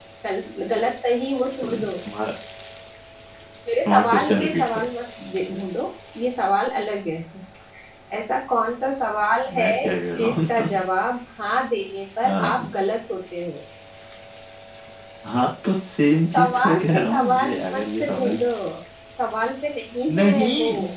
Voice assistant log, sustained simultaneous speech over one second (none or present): present